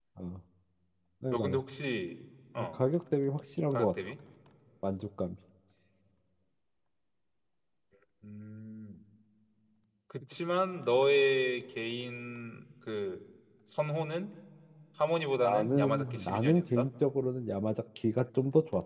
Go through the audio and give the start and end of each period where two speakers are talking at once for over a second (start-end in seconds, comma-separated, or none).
15.4-16.9